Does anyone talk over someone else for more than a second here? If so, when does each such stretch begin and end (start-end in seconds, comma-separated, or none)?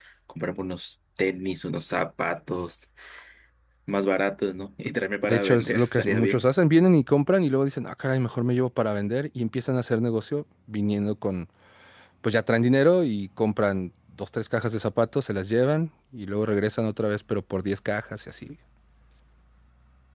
5.2-6.4